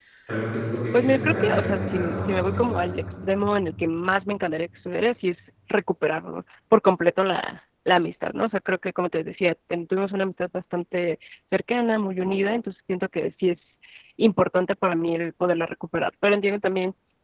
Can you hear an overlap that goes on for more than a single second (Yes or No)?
Yes